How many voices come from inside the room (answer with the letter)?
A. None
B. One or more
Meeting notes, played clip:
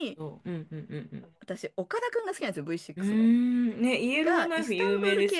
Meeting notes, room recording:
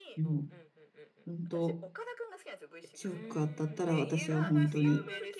B